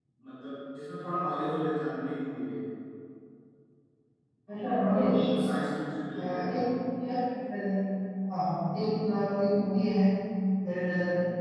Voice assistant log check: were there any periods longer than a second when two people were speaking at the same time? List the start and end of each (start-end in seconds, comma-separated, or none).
none